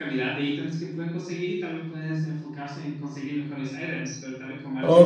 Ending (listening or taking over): taking over